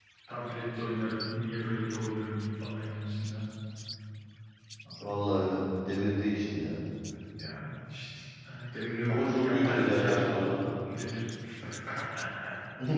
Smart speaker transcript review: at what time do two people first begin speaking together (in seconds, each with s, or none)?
9.1 s